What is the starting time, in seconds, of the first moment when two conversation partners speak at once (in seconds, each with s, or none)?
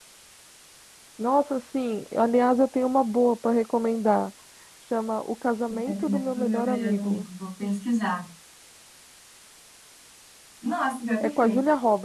5.9 s